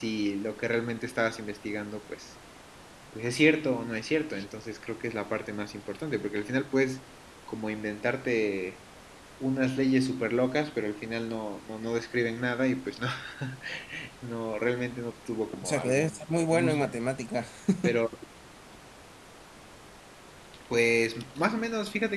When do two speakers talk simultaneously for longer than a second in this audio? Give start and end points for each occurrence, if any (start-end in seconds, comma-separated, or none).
15.6-17.0